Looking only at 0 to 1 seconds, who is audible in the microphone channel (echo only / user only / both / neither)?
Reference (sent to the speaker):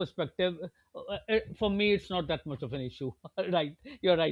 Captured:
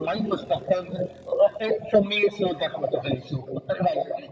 echo only